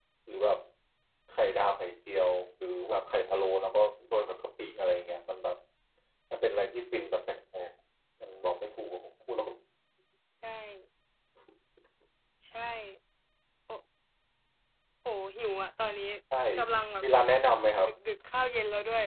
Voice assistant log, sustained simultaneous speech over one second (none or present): none